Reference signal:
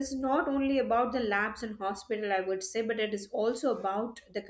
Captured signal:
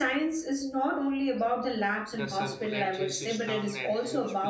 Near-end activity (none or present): present